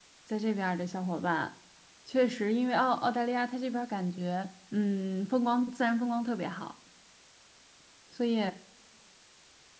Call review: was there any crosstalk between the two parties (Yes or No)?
No